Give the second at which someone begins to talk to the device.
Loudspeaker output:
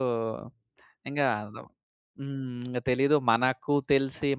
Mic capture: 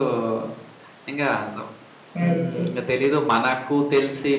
2 s

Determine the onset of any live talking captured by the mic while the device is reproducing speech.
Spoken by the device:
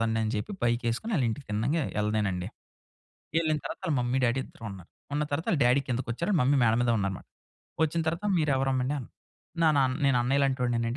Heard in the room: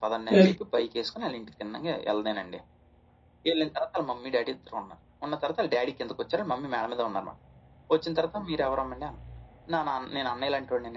0 s

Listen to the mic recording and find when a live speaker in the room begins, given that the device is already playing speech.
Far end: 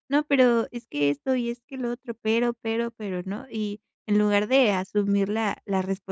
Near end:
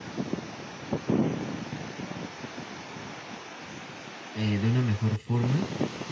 4 s

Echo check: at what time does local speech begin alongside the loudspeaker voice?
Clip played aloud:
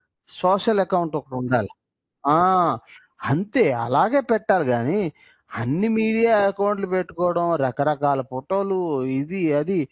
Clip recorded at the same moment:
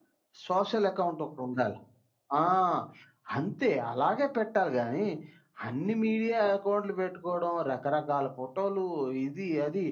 none

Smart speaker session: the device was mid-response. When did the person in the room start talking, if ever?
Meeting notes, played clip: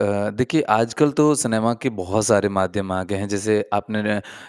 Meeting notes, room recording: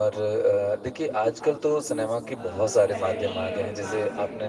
2 s

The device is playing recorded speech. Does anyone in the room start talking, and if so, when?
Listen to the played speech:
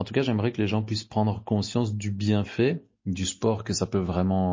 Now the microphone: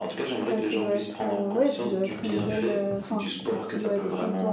0 s

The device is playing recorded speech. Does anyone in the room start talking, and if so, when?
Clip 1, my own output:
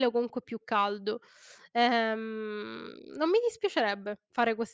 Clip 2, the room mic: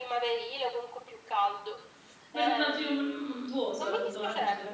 2 s

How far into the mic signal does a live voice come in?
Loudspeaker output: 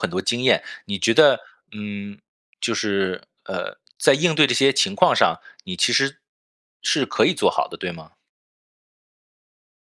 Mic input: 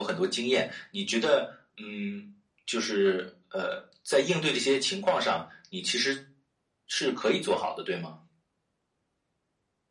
none

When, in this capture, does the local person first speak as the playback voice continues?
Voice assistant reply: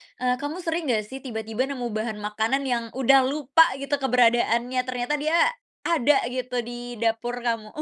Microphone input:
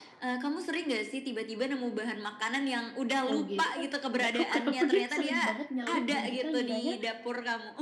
3 s

